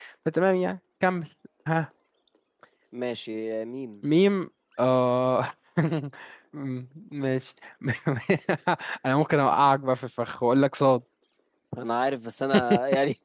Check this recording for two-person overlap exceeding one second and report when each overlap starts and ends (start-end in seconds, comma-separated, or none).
none